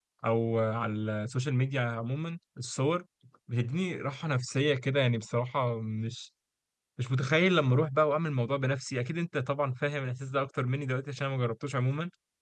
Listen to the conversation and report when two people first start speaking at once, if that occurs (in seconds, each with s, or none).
none